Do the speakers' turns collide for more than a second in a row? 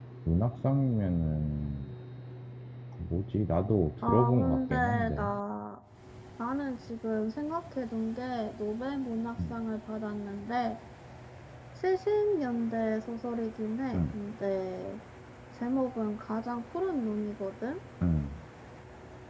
Yes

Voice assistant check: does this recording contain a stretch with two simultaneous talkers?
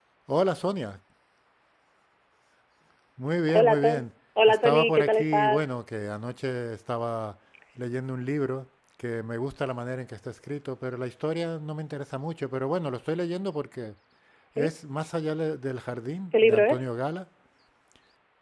Yes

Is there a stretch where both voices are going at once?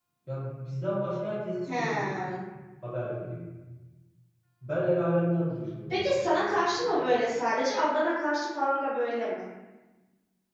Yes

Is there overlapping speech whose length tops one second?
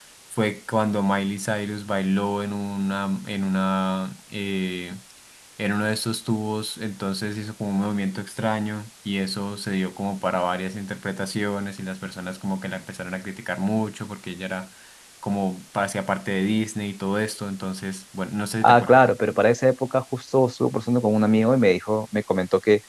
No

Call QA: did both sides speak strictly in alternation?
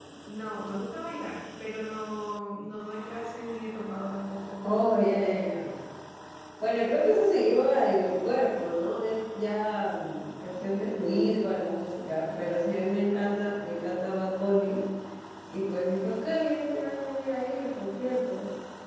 Yes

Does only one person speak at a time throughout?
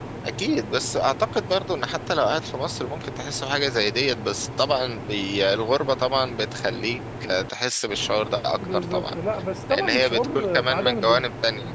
No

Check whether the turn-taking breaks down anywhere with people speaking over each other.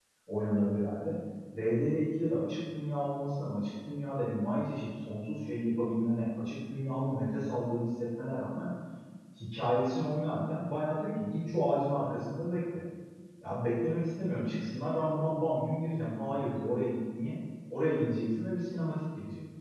No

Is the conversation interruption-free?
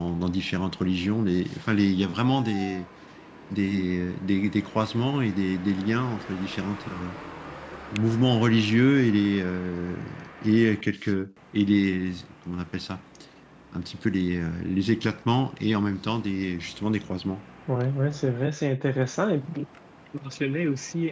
Yes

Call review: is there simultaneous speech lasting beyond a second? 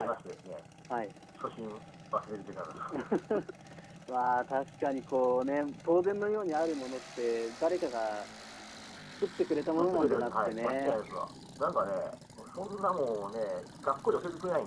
Yes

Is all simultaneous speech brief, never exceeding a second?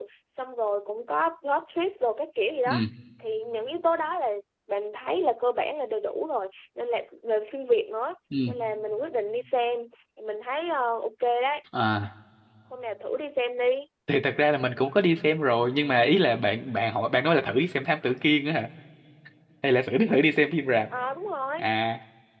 Yes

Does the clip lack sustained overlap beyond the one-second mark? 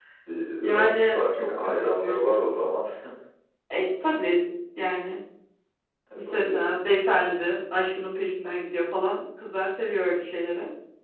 No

